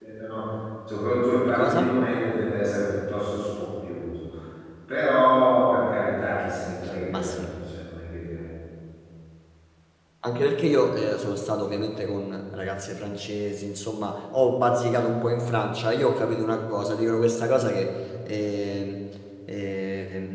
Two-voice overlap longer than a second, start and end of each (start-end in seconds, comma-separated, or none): none